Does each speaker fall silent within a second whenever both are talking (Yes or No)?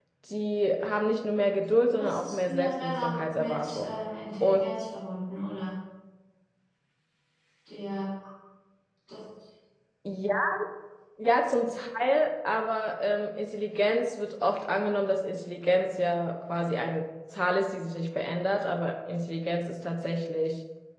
No